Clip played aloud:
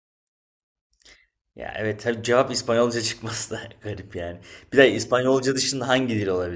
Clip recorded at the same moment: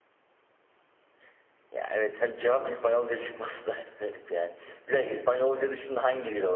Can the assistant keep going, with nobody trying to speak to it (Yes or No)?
Yes